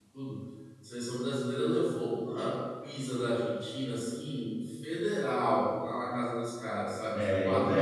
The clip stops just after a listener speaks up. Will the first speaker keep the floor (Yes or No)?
No